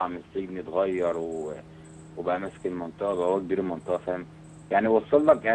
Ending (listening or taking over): listening